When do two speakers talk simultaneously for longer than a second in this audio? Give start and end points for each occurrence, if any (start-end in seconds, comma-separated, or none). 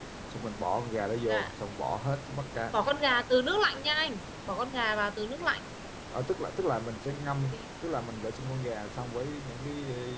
none